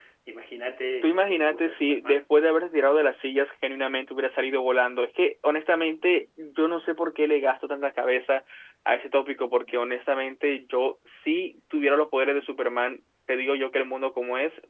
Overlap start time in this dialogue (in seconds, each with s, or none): 1.0 s